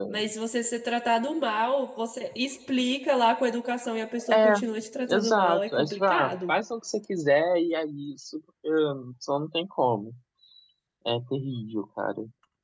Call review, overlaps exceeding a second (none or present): present